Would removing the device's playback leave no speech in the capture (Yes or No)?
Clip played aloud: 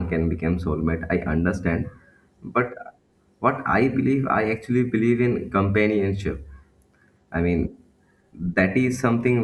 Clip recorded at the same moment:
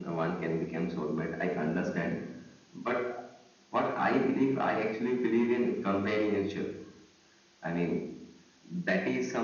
Yes